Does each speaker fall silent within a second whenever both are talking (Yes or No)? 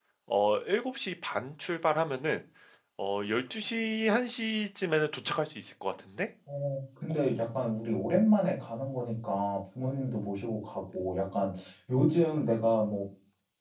Yes